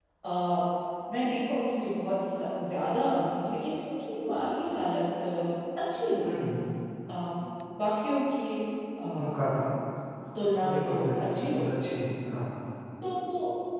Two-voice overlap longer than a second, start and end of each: 10.7-11.9

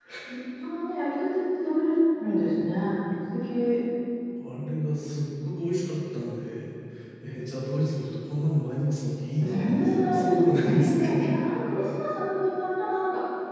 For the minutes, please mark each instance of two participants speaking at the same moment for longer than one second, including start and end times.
9.5-11.1

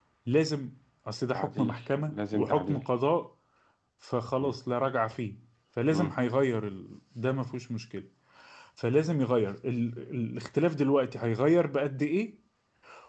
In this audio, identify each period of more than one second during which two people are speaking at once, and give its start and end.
1.3-2.8

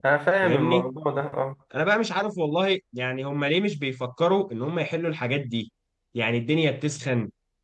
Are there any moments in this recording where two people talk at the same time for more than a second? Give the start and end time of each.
none

